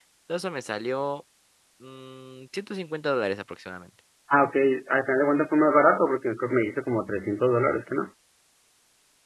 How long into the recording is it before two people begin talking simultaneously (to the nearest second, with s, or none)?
none